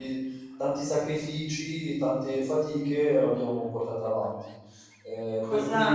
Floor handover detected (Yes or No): Yes